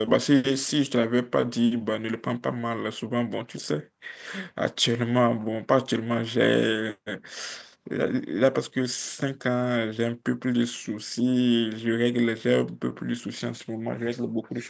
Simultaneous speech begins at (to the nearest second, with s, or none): none